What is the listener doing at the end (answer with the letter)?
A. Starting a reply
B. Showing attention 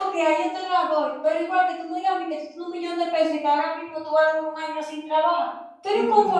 B